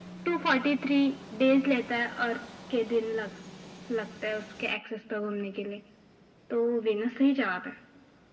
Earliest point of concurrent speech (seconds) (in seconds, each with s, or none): none